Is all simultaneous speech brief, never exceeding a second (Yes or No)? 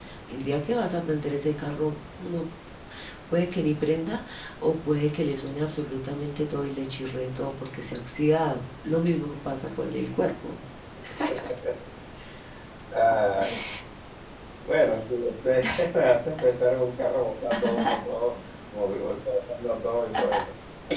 Yes